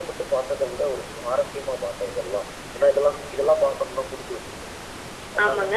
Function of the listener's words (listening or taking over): taking over